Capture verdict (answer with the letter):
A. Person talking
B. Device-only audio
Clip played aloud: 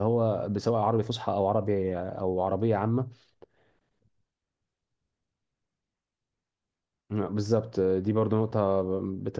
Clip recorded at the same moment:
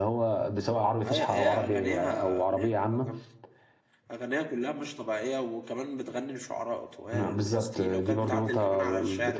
A